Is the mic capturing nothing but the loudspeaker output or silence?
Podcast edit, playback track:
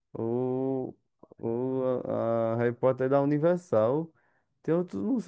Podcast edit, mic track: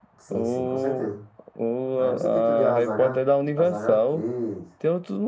No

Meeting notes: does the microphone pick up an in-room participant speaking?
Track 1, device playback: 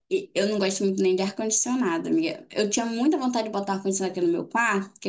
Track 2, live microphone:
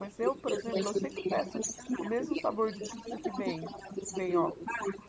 Yes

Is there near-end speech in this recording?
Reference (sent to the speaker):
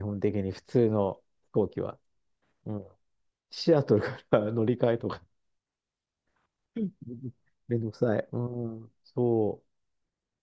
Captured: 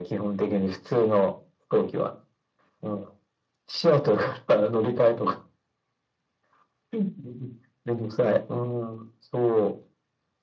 No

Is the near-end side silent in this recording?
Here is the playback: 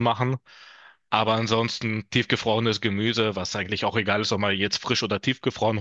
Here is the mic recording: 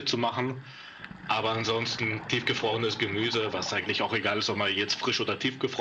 Yes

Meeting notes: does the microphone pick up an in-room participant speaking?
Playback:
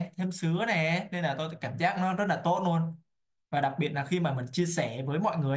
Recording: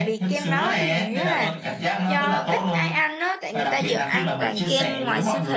Yes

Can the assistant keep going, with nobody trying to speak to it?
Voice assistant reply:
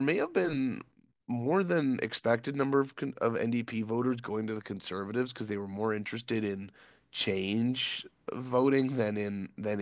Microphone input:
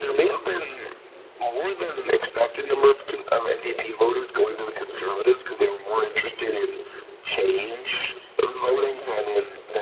Yes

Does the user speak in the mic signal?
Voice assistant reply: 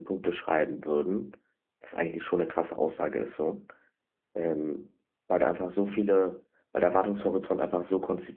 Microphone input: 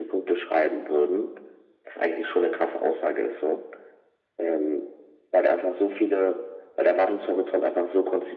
No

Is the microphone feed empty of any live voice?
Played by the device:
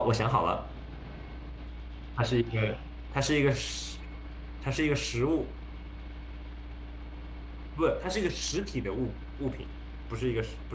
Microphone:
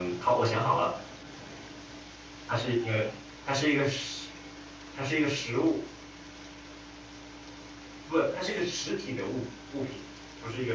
Yes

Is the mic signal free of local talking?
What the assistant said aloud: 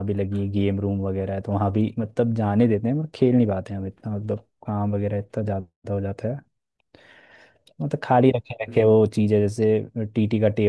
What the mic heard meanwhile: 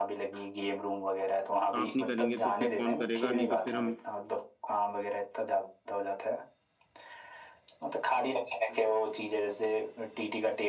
No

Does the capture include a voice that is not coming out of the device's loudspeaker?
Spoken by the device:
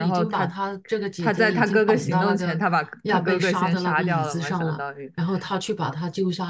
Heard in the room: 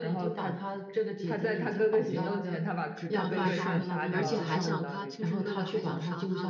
Yes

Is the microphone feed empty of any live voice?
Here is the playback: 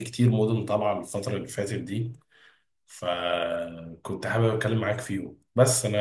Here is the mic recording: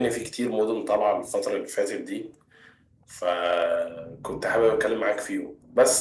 Yes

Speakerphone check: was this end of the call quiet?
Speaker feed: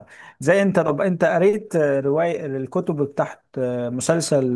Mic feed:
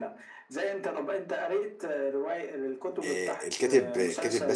No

